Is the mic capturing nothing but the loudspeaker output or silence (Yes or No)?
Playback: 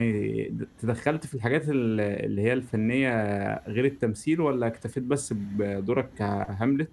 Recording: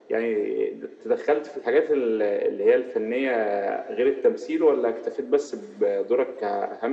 Yes